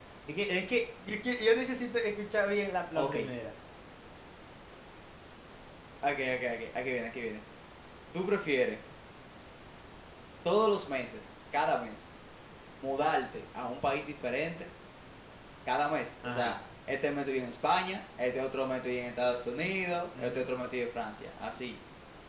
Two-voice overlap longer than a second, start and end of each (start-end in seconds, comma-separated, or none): none